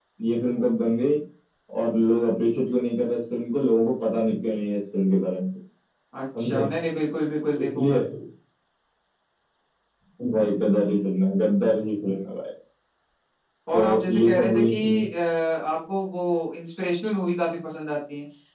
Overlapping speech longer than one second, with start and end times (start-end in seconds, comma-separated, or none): 13.7-15.1